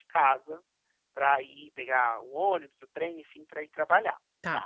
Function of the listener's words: listening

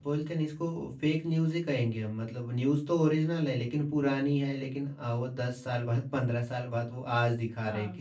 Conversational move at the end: taking over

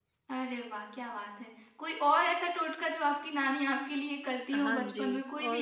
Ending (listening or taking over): taking over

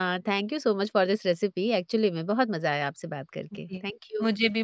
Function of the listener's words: taking over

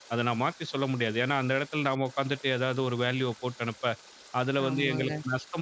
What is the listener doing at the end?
listening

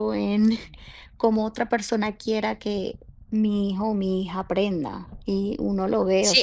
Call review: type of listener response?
taking over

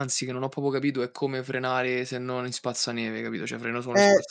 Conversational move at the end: taking over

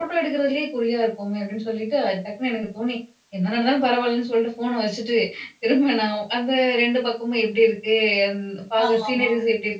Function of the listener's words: listening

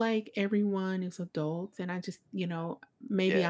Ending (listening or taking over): listening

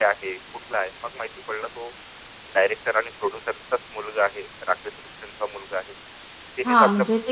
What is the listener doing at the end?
taking over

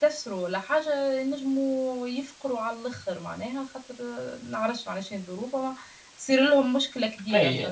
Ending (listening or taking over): taking over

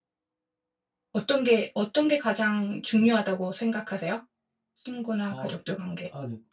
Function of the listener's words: taking over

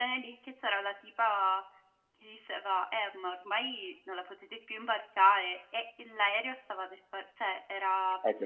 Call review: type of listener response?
taking over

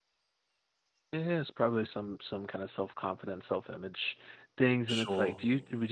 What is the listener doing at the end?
listening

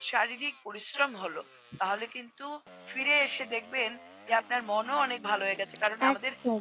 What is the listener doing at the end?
listening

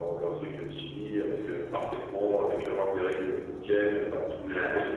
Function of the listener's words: listening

